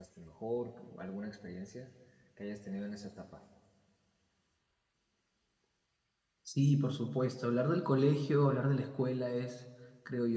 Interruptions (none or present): none